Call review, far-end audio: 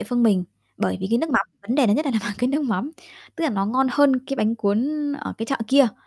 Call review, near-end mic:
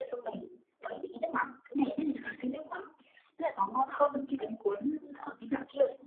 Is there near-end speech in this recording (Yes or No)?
No